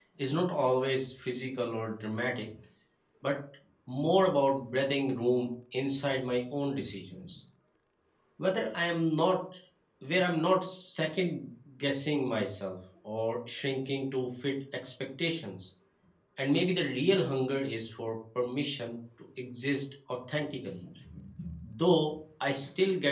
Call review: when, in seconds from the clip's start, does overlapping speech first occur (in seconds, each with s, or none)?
none